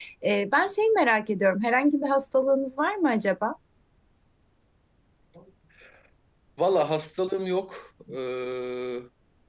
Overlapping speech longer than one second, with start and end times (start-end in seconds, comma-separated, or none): none